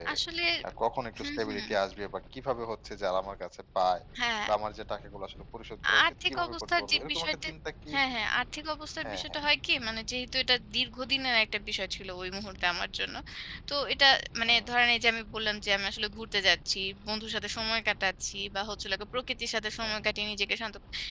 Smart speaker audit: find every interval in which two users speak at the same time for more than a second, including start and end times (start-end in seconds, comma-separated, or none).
6.0-7.5